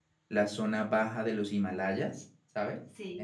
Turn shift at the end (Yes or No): No